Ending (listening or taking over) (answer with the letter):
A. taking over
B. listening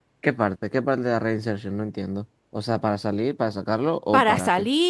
A